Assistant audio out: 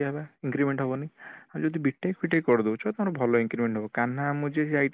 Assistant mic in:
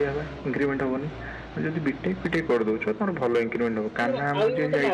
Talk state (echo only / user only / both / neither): both